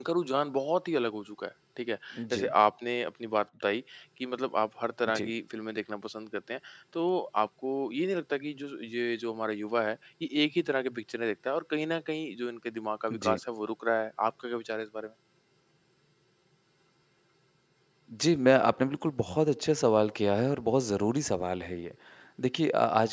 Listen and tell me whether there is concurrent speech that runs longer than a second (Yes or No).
No